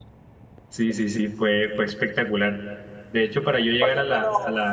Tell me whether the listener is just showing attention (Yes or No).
Yes